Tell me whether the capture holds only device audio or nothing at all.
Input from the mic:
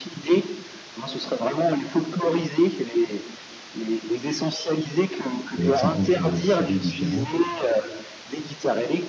No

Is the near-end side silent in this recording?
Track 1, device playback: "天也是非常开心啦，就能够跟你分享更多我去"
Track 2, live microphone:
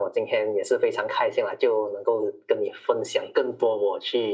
Yes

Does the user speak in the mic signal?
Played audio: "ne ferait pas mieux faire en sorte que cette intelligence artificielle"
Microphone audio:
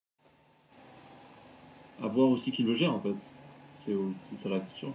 Yes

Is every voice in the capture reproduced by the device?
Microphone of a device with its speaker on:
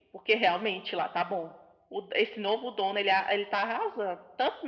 Yes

